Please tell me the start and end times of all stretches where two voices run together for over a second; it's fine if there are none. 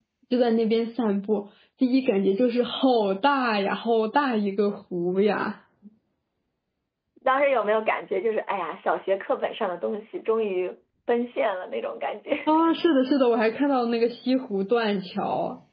none

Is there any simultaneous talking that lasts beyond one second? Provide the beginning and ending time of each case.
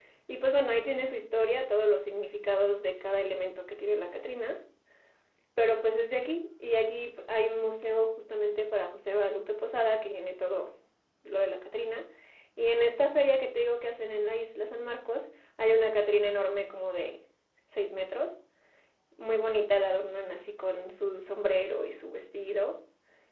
none

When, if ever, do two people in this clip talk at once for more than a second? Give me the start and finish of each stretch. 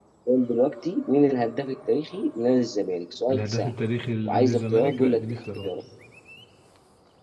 4.2-5.7

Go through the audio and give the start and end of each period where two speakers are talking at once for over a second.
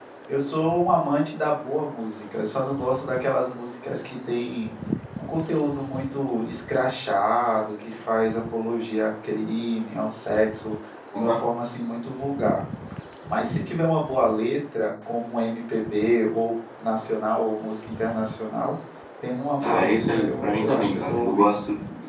19.6-21.6

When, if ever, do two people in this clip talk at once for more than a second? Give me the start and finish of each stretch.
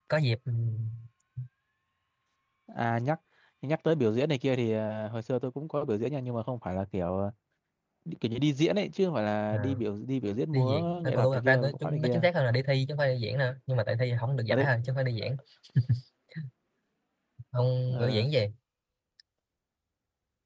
10.5-12.2

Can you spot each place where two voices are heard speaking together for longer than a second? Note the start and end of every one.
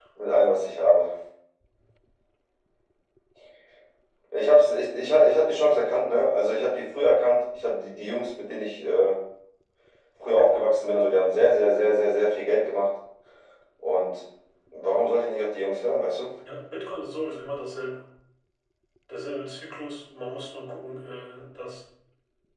none

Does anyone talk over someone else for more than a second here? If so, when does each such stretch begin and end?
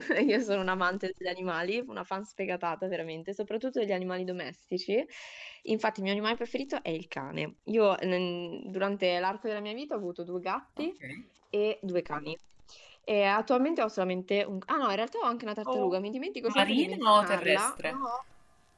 16.5-18.0

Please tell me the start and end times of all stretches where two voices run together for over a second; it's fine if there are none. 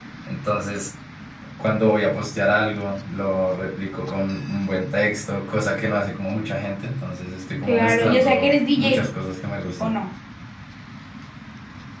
7.6-9.1

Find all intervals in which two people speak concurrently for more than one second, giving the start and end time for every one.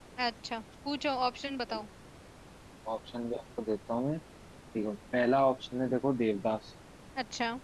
none

